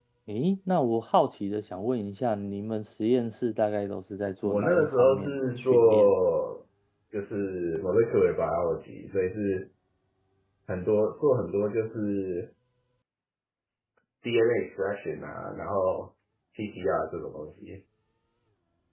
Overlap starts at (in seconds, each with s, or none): 4.4 s